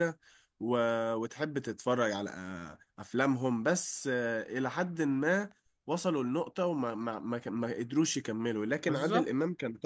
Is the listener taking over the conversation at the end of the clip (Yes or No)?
No